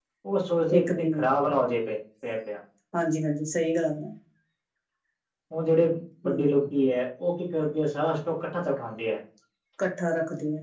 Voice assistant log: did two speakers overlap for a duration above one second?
No

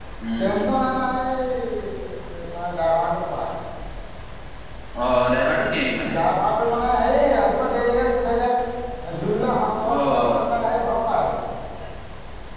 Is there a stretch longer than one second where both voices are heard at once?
No

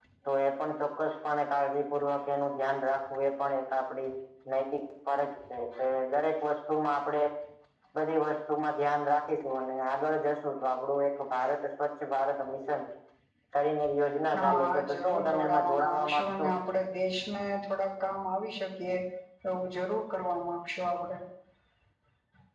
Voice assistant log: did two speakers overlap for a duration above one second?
Yes, from 14.4 s

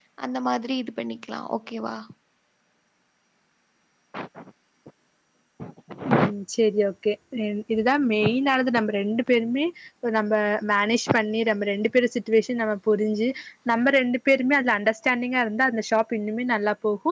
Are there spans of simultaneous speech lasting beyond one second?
No

